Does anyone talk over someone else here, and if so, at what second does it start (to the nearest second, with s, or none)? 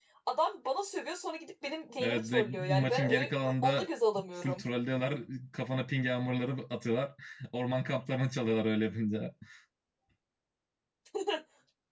2 s